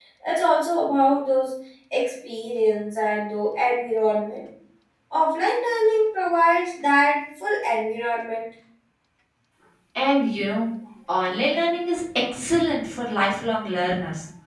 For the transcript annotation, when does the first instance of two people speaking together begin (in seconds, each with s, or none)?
none